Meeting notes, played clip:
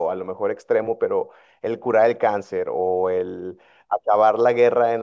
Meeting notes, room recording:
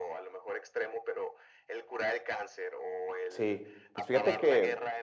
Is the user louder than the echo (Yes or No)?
Yes